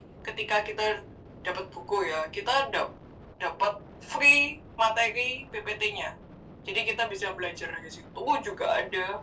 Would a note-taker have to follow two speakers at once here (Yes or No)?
No